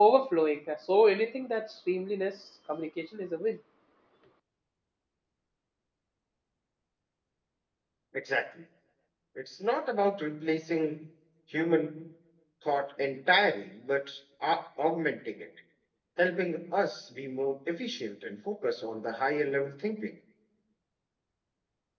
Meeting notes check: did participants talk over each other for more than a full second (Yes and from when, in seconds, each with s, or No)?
No